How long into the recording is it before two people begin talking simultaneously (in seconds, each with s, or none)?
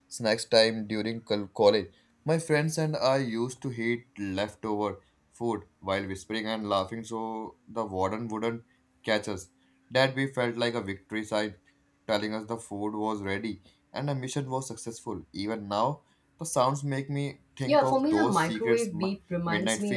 17.7 s